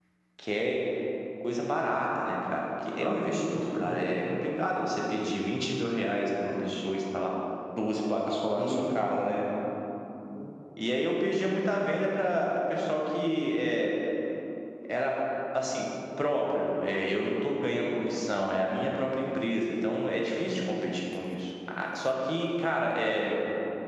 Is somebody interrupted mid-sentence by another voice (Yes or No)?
Yes